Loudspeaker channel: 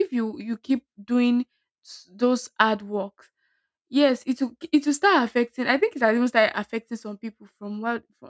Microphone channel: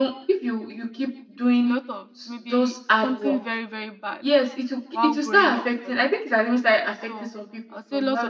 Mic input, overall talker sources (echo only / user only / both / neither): both